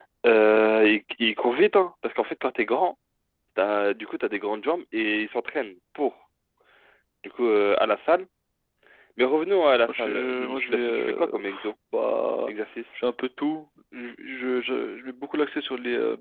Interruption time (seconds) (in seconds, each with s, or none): 9.9 s